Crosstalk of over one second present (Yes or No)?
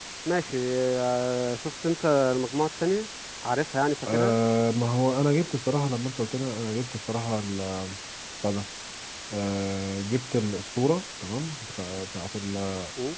No